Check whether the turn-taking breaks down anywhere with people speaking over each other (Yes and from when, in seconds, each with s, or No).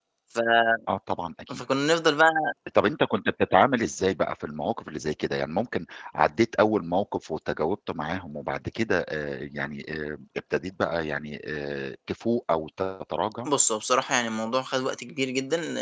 No